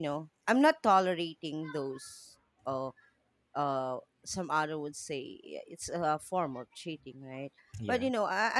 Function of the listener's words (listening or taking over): listening